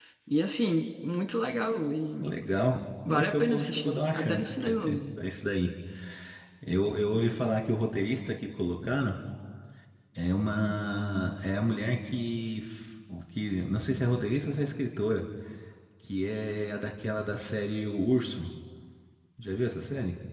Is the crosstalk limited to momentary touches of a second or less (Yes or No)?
No